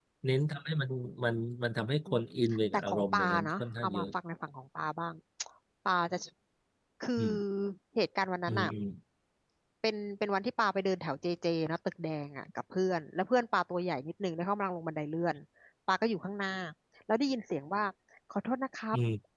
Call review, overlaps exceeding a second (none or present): present